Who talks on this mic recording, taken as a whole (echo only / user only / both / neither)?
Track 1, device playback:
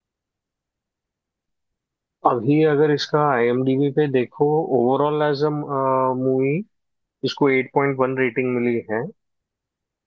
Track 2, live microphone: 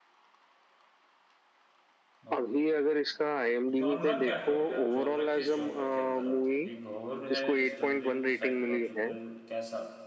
both